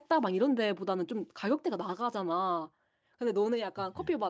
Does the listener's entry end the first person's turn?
No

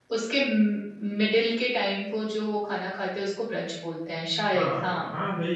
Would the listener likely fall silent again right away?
No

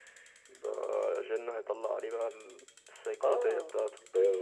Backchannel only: No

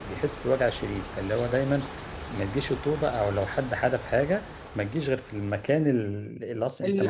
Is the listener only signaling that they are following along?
Yes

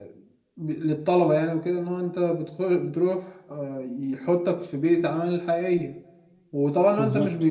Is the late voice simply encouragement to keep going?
Yes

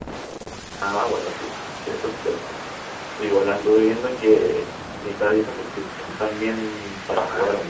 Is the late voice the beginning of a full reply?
Yes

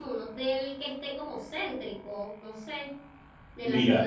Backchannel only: No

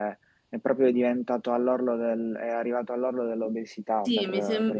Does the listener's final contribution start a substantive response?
Yes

